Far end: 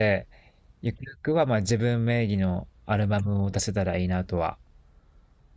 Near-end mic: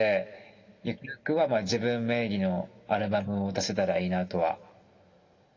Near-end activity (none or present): none